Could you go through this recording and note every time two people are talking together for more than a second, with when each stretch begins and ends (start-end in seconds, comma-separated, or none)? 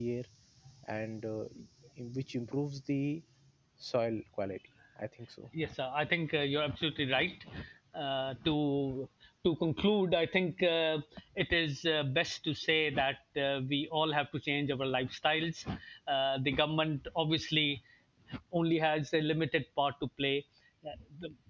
none